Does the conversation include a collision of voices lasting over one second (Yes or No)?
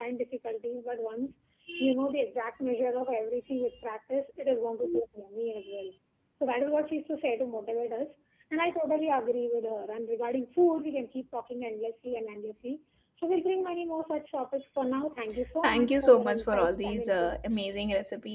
Yes